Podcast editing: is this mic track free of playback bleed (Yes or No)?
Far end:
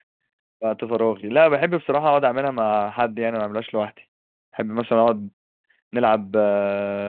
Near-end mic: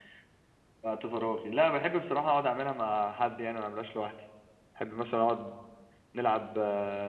No